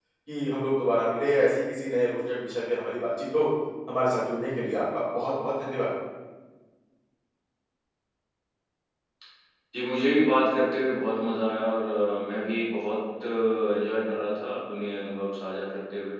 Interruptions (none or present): none